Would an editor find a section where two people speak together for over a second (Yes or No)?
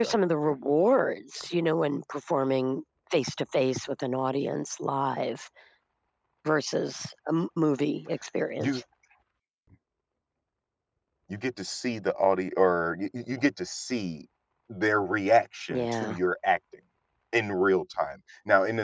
No